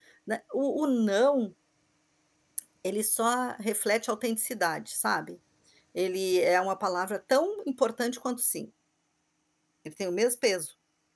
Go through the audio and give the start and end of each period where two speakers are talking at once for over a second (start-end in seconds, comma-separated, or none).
none